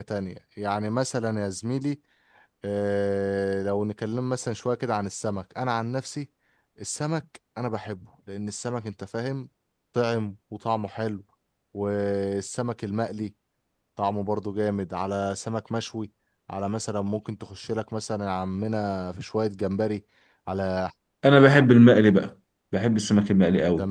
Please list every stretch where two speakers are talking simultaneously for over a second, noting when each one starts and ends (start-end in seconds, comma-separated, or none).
none